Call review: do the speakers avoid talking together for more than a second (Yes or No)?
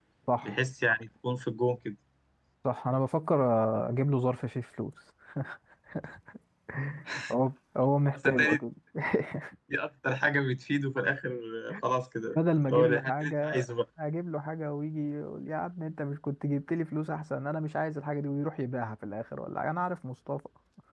No